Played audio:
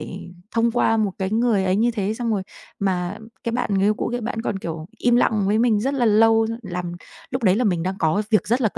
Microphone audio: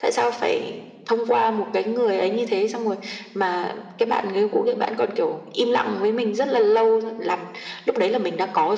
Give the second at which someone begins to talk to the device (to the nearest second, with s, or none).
none